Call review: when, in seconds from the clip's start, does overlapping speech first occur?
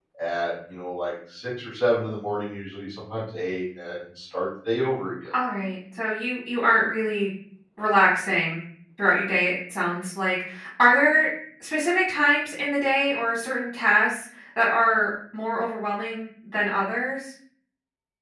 none

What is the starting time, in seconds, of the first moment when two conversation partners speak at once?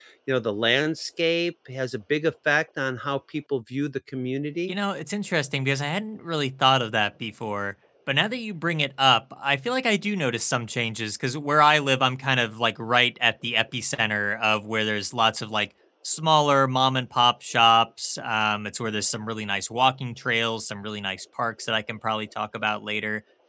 none

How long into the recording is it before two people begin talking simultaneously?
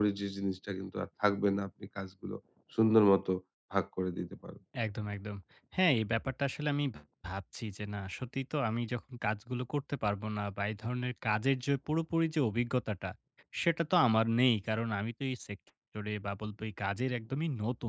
none

